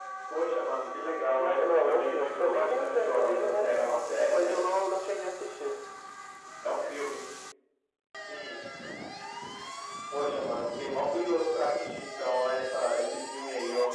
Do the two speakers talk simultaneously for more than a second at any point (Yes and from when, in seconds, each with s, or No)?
Yes, from 1.4 s